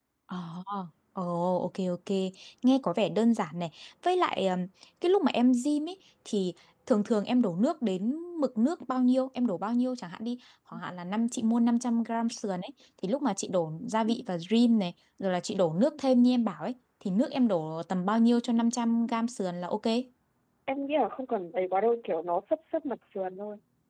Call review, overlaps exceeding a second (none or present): none